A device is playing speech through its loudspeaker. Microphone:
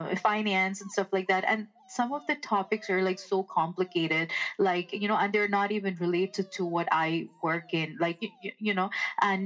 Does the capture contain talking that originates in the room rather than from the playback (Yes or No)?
No